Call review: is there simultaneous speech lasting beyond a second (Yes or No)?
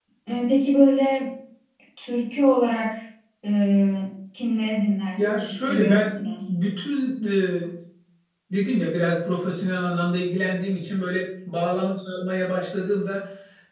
Yes